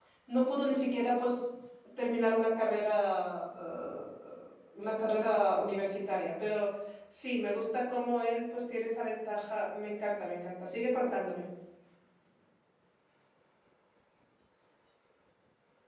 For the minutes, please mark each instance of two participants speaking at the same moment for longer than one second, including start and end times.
none

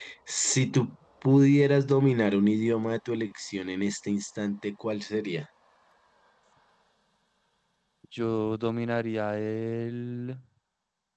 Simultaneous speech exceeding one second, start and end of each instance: none

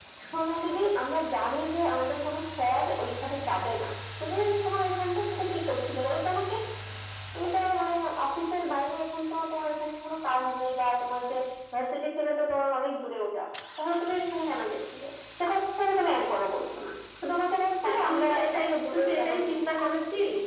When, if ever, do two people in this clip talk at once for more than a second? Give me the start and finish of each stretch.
17.8-19.5

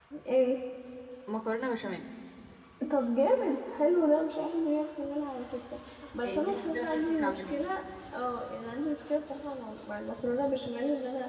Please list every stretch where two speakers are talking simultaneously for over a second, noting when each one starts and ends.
6.2-7.5

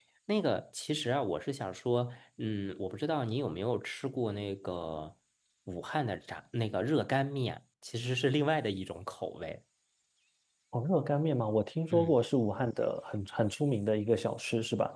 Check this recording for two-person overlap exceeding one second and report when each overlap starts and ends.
none

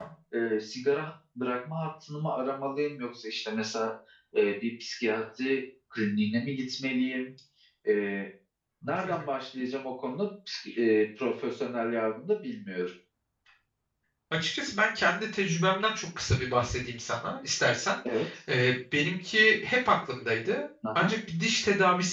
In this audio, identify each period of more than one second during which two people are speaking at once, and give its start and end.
none

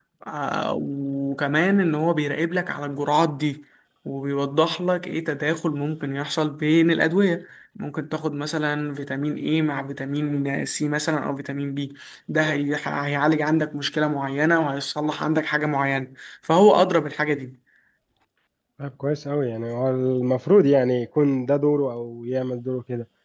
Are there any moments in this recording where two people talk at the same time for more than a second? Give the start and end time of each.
none

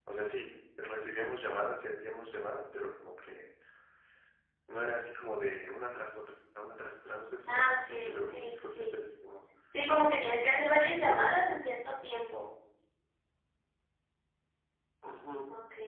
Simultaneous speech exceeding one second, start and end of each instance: 7.5-9.0

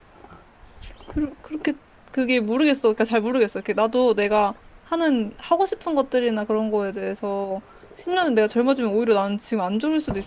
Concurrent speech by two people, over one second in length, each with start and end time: none

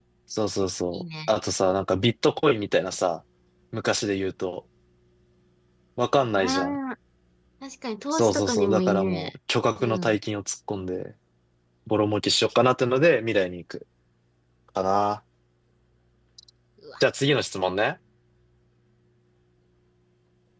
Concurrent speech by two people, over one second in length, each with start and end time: 8.1-9.3

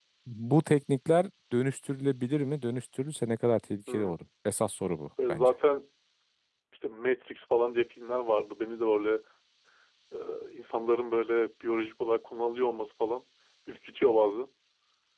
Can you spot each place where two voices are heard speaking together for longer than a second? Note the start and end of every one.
none

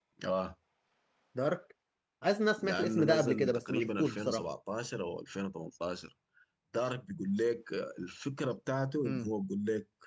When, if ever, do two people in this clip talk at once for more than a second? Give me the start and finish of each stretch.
2.6-4.4

